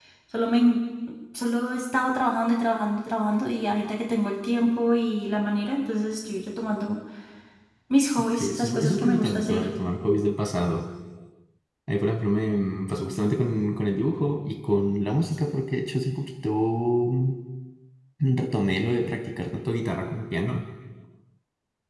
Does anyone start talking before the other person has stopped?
Yes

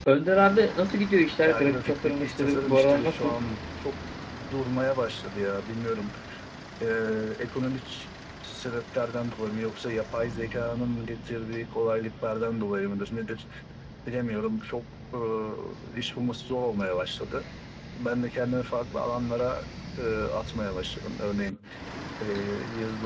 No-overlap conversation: No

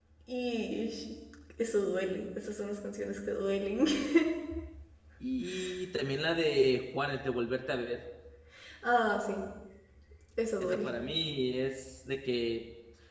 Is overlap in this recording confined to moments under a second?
Yes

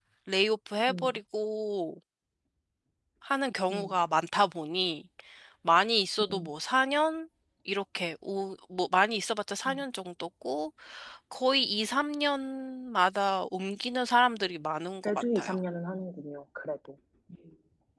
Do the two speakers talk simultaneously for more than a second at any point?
No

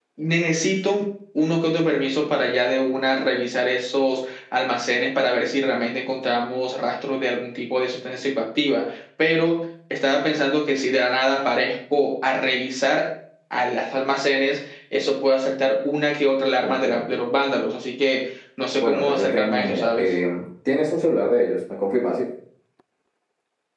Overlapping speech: Yes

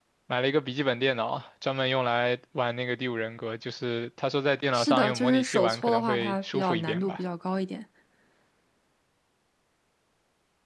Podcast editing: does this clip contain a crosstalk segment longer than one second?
Yes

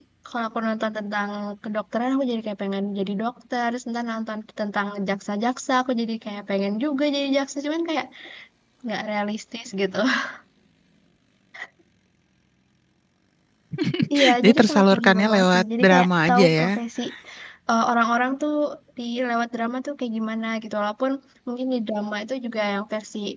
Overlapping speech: Yes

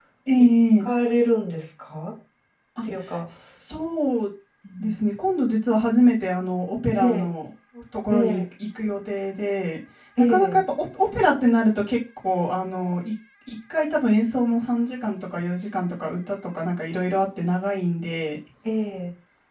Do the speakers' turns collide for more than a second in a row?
No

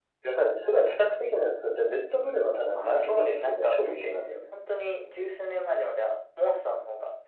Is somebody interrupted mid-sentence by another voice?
Yes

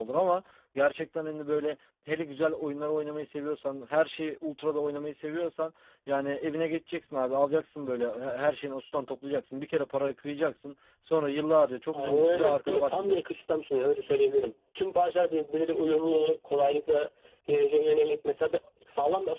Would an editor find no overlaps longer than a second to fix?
No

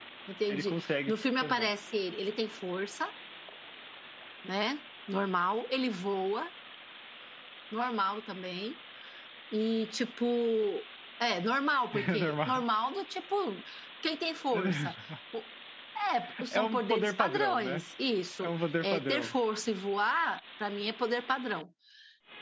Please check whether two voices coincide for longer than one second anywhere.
Yes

